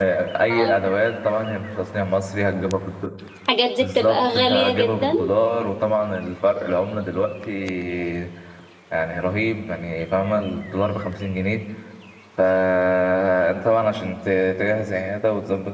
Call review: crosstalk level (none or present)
present